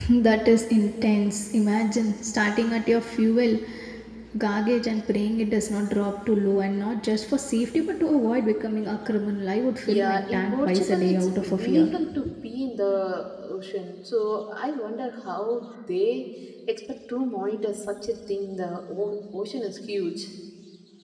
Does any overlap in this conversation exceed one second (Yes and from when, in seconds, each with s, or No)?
Yes, from 9.9 s